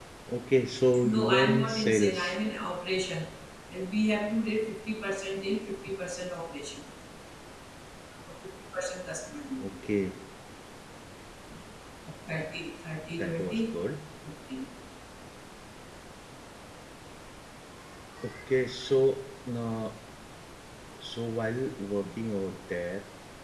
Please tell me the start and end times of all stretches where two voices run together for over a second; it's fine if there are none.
1.0-2.4

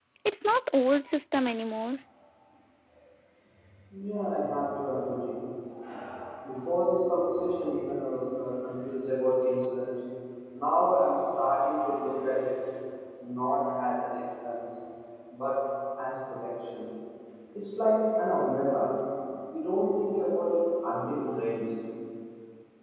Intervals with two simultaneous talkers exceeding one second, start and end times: none

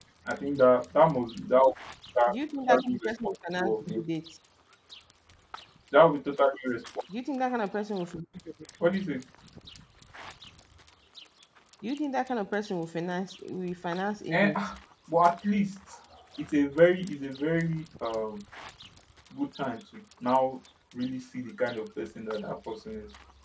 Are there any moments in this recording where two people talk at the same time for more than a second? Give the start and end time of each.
2.7-4.0

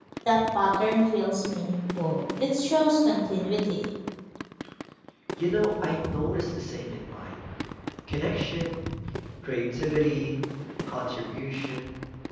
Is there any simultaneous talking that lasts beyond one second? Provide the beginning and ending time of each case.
none

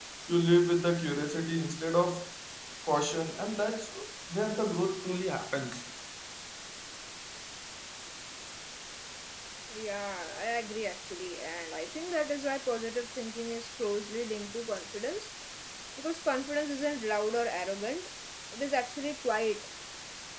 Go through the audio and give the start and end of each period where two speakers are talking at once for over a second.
none

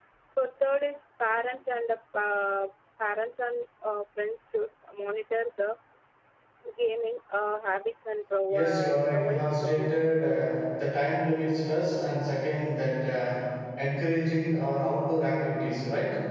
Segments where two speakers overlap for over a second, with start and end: 8.5-10.1

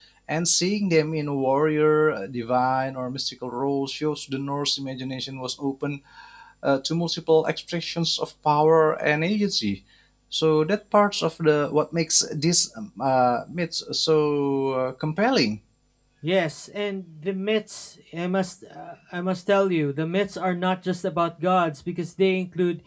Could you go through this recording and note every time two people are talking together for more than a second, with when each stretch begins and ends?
none

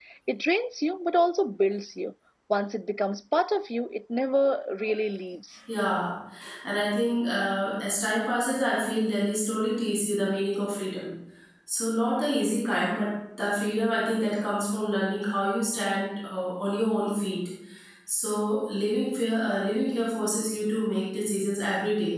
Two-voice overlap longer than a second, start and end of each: none

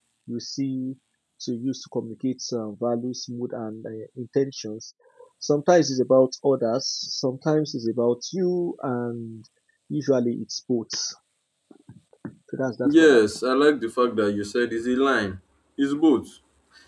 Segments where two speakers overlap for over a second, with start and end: none

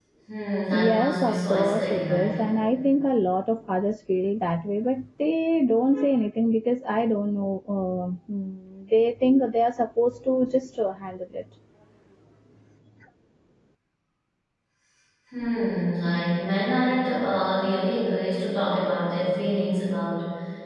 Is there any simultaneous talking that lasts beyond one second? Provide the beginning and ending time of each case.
0.7-2.4

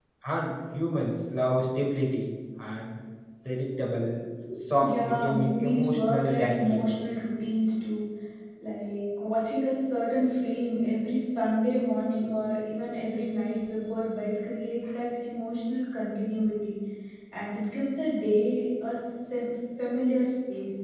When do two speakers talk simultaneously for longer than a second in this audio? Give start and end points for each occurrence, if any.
4.8-7.0

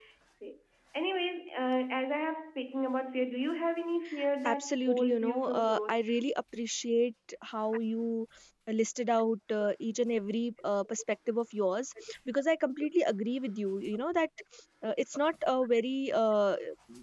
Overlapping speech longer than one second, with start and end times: 4.5-6.0

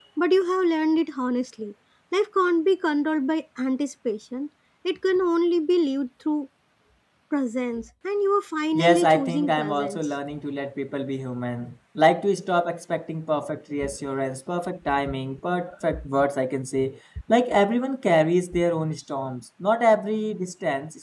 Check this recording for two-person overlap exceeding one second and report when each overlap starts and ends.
8.7-10.1

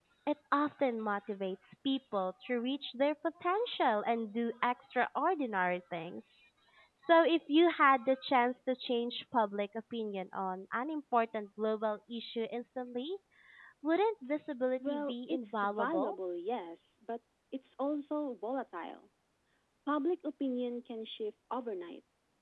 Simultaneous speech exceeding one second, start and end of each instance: 14.9-16.1

